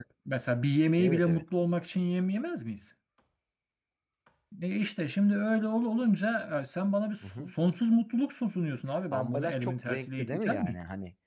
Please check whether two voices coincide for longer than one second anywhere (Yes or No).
Yes